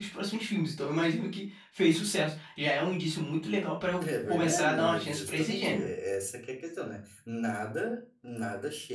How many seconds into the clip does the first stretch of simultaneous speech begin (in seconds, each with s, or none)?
4.0 s